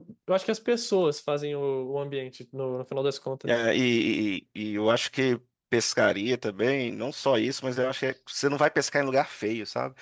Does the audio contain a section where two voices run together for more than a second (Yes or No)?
No